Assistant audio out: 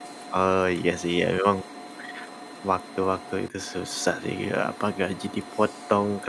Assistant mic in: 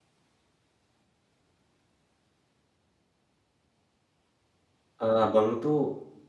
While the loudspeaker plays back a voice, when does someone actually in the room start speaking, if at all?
5.0 s

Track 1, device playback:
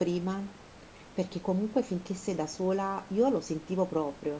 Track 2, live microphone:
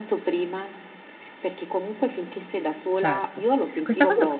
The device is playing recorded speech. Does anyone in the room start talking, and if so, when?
3.0 s

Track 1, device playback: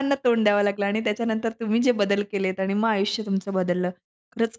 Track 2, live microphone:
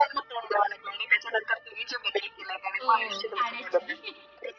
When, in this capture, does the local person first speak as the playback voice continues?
2.8 s

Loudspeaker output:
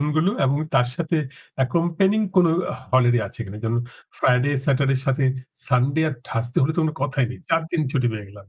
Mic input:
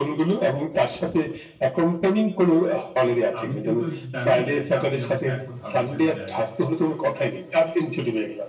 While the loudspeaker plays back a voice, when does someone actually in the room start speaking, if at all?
3.4 s

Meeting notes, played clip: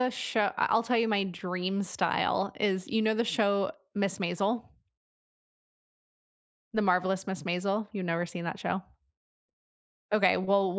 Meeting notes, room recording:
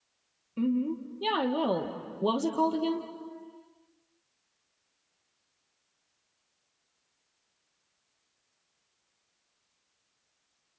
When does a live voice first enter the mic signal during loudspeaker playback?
0.6 s

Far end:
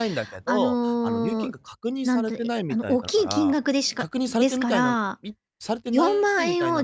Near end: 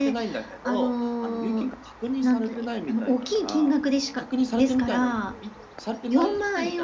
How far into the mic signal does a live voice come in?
none

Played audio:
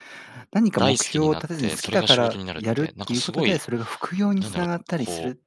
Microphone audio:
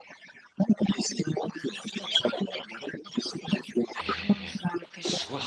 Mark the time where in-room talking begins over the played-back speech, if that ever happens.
3.9 s

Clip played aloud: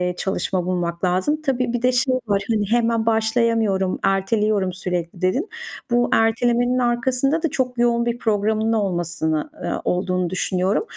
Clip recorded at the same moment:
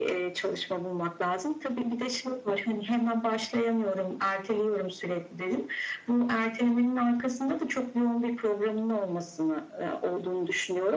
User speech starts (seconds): none

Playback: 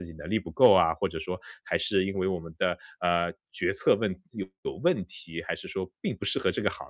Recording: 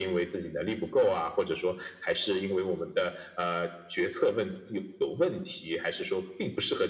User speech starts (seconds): none

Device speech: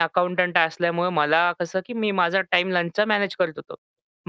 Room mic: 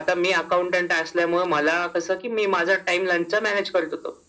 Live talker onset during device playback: none

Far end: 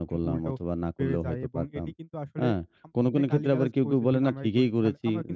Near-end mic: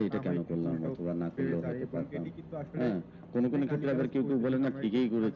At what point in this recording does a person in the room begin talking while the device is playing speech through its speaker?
none

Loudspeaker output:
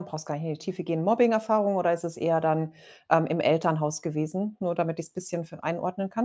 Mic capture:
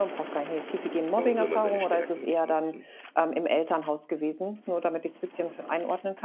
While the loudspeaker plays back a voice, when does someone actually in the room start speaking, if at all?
1.1 s

